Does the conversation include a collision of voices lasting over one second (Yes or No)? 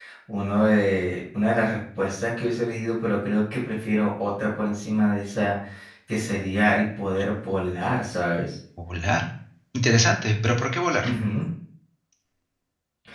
No